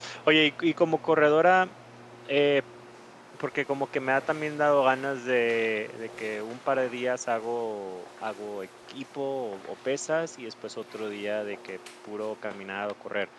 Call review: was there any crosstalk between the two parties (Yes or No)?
No